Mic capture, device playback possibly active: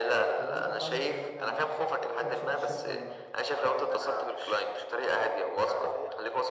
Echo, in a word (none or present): present